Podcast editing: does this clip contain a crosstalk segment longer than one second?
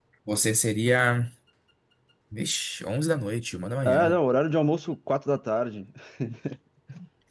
No

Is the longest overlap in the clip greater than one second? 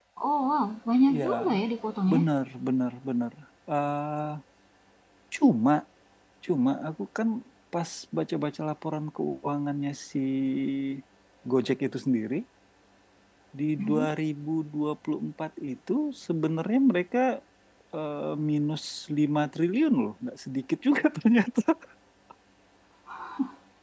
No

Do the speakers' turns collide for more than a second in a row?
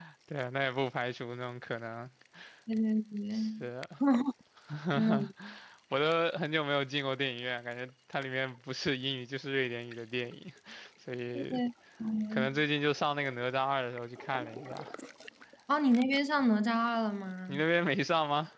No

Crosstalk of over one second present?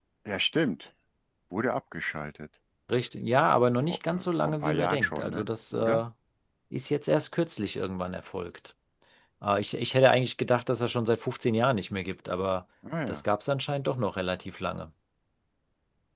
Yes, from 3.9 s

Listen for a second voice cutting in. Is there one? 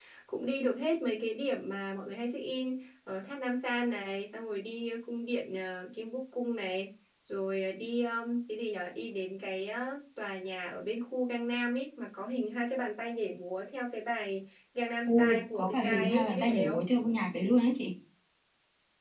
Yes, from 15.1 s

